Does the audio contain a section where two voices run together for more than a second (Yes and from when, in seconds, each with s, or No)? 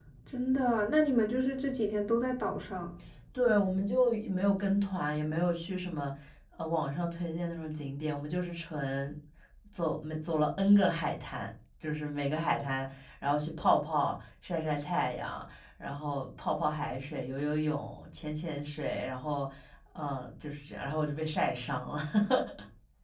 No